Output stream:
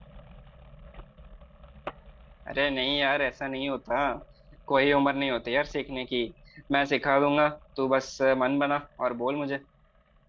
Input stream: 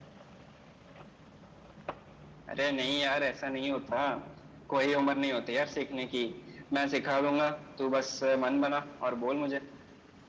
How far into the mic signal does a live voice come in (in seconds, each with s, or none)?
none